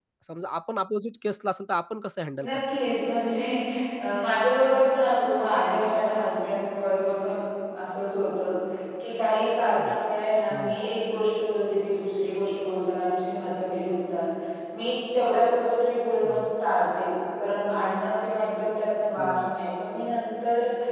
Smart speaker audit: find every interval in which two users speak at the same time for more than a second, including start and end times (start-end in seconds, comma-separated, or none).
none